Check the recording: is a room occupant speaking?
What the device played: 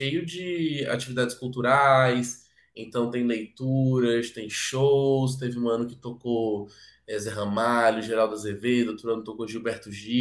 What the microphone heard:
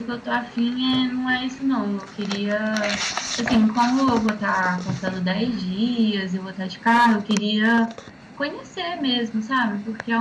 Yes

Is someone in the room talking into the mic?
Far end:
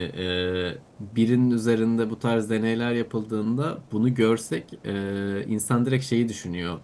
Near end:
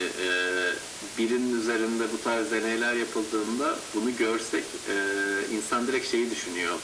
No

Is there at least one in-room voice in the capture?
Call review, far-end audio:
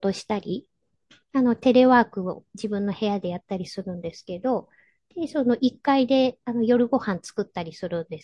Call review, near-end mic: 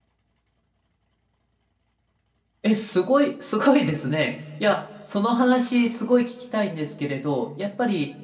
Yes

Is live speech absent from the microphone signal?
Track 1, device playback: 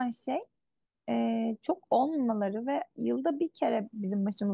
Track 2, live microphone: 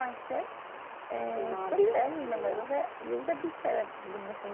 No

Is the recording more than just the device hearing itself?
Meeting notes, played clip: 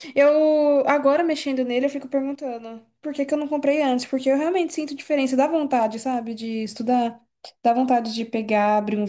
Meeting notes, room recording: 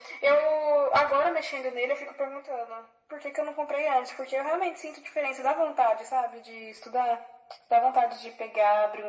No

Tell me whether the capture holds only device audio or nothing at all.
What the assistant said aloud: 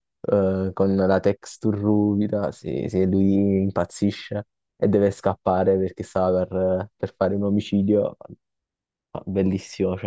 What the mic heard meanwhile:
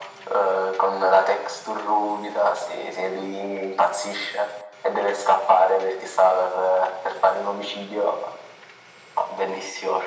Yes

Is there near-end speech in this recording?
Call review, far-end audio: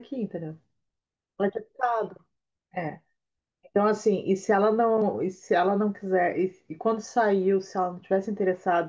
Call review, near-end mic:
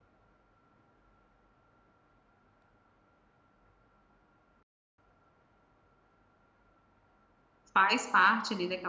Yes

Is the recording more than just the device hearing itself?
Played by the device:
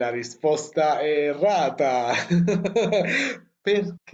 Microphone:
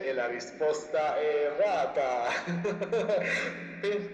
No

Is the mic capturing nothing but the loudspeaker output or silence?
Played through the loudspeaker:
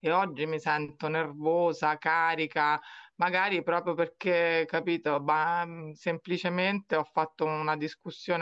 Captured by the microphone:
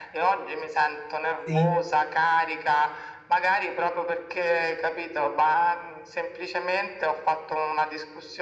No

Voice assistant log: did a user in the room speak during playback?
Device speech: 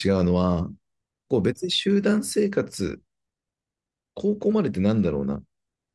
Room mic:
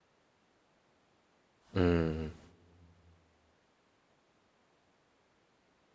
Yes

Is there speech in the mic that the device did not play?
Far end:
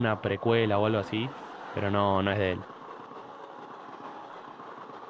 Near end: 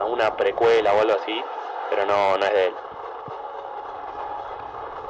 No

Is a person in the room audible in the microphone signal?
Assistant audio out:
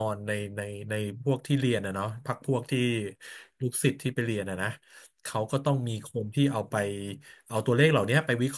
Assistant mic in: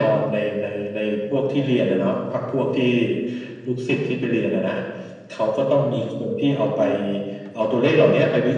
No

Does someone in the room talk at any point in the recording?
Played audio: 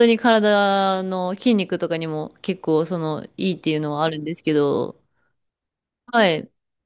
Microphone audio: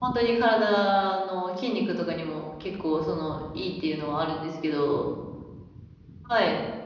No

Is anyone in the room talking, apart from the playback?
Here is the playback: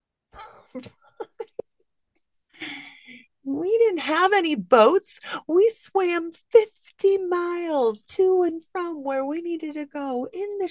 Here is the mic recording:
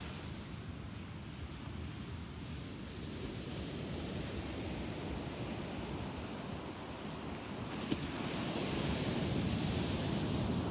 No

